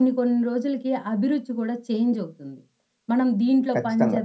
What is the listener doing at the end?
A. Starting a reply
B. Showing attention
B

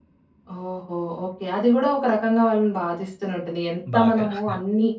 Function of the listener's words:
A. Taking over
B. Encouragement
B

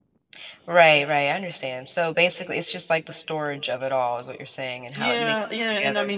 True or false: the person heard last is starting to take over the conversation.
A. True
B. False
A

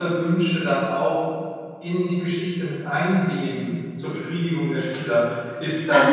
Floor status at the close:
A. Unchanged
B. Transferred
B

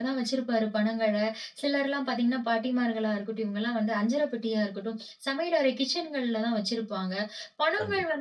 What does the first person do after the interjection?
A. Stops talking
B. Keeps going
B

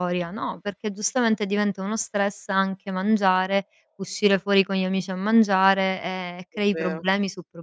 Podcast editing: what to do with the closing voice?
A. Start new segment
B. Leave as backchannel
B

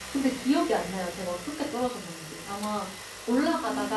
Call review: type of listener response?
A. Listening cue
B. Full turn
A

